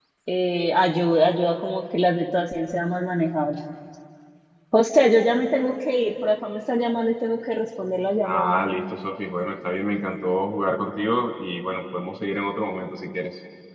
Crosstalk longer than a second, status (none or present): none